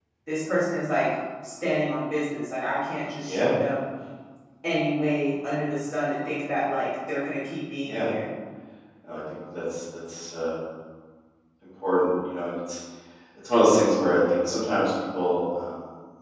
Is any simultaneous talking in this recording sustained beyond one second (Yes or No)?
No